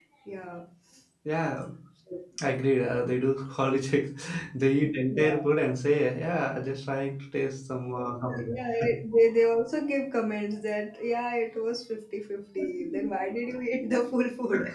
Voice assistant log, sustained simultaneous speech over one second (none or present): none